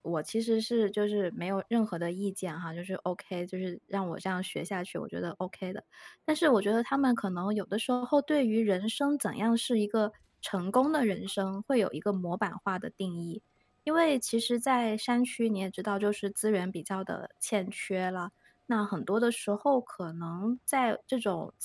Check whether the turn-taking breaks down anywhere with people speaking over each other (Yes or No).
No